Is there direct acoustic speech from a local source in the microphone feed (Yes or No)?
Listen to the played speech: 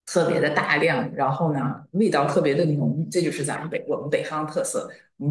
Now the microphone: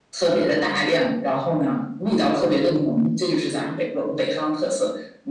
No